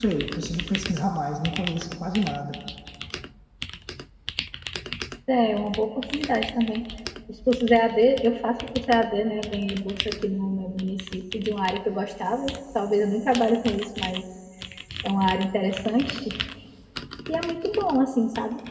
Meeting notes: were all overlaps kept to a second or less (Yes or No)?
Yes